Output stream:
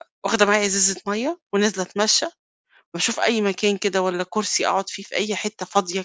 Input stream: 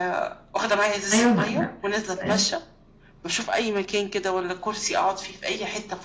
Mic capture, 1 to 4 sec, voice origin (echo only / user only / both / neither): both